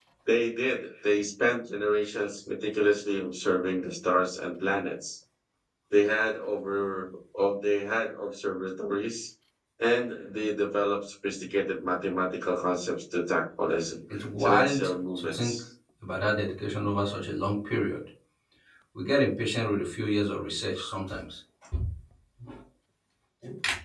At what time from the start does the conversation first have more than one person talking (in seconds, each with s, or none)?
14.4 s